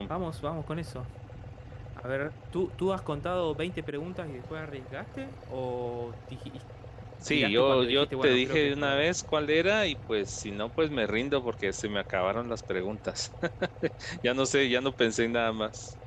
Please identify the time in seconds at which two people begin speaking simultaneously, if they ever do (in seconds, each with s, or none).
7.3 s